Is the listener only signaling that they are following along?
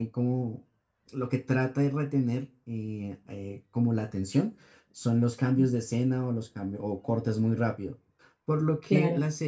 Yes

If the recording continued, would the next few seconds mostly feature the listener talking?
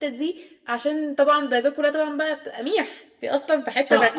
Yes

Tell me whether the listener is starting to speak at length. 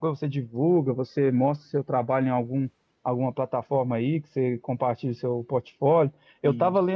No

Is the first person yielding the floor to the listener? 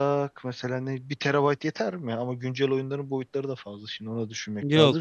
Yes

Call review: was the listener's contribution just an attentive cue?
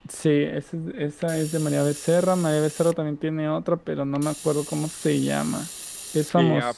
No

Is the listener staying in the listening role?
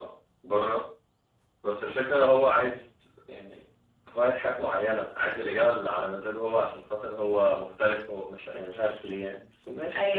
No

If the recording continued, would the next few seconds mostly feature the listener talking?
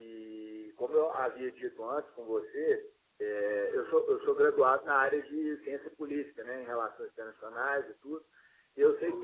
No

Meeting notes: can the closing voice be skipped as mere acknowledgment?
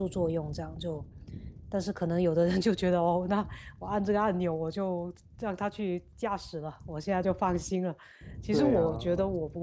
Yes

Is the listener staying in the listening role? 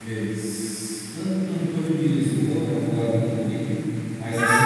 No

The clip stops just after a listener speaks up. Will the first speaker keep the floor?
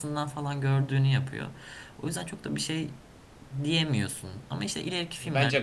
No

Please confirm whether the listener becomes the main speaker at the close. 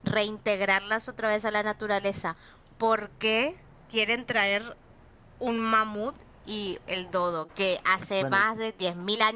No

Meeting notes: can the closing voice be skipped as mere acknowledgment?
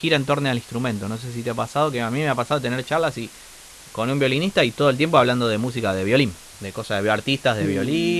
Yes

